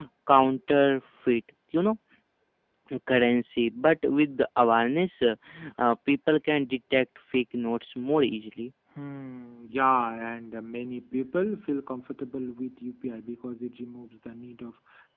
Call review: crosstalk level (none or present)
none